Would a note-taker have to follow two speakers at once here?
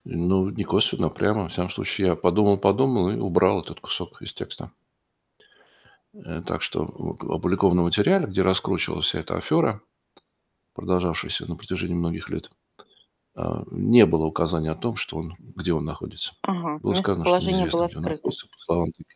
Yes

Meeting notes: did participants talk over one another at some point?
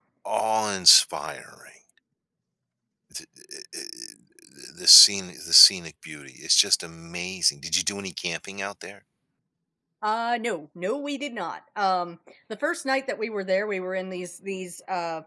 No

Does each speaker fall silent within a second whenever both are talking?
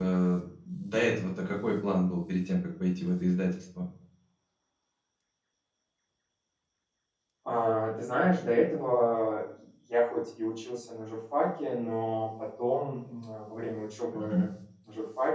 Yes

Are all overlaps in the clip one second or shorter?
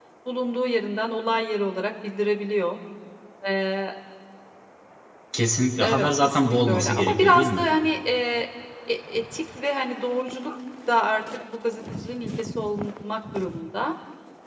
No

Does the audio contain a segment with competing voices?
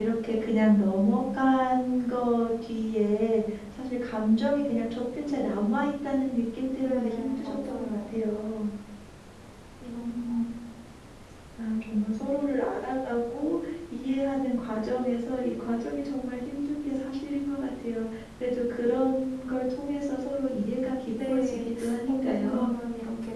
Yes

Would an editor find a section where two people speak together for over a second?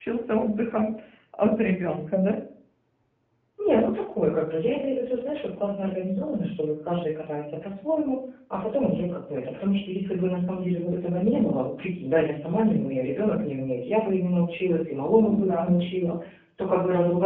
No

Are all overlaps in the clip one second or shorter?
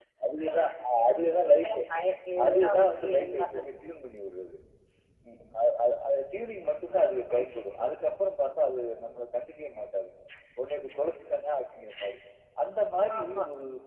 No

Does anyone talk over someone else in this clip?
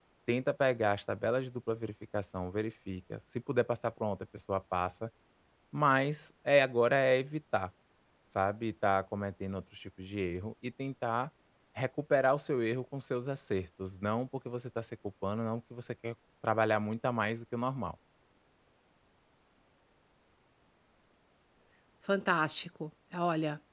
No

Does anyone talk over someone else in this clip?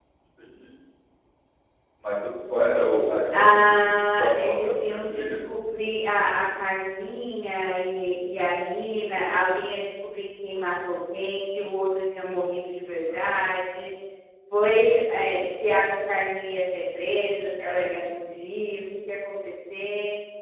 Yes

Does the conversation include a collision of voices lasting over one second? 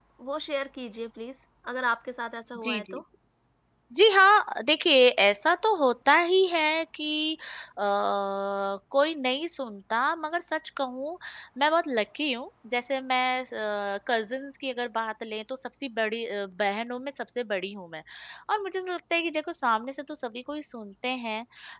No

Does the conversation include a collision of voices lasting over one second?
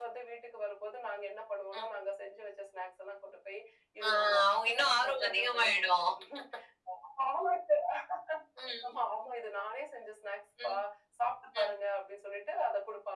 Yes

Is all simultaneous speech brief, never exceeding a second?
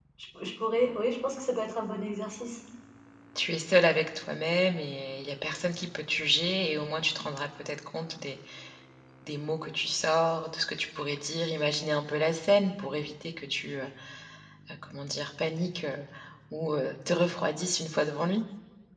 Yes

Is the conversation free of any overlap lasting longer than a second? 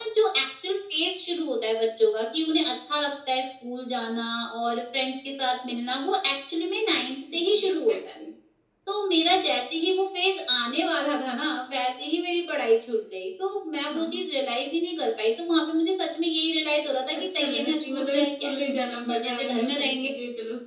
No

